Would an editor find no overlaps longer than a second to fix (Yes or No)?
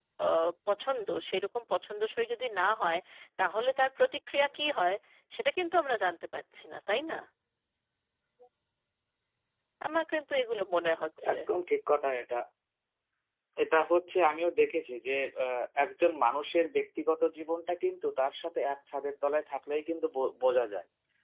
Yes